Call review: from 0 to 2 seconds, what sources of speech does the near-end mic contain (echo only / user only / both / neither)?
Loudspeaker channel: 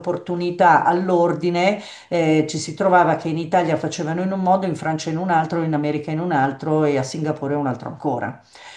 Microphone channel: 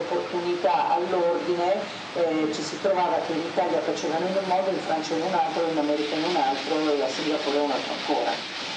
echo only